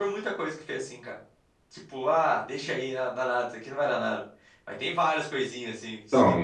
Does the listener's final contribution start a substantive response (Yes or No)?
Yes